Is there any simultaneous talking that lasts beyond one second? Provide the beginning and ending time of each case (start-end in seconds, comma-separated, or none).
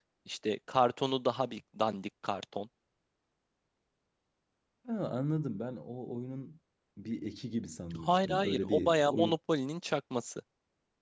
8.0-9.4